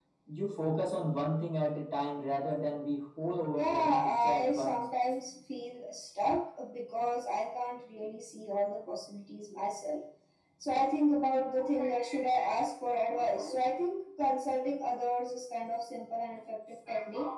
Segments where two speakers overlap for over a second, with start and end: 3.6-4.8

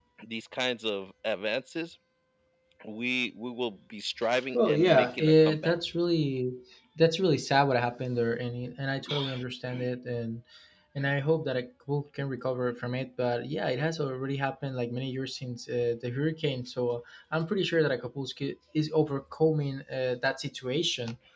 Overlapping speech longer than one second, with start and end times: 4.5-5.7

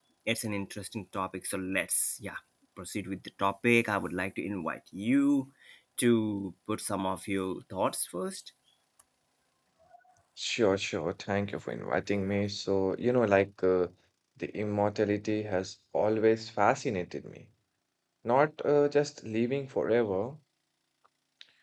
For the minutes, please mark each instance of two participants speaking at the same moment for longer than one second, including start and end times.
none

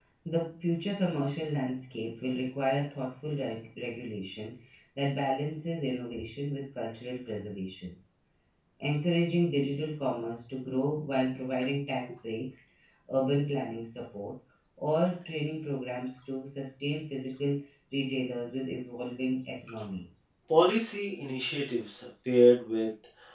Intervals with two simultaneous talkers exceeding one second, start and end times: none

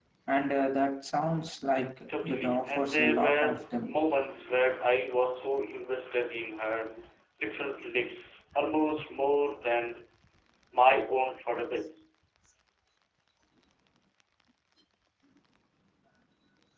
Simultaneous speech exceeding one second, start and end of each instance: 2.2-4.0

